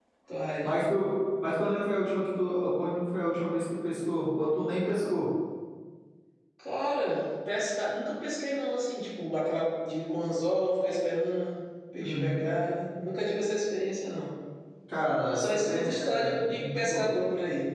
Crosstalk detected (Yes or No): Yes